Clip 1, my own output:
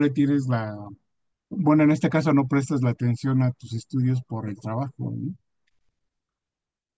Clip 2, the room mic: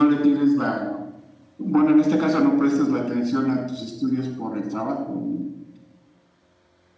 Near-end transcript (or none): none